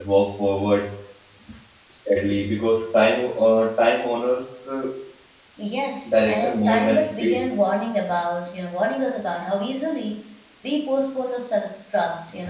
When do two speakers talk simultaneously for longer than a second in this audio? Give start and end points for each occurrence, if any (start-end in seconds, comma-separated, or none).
6.1-7.5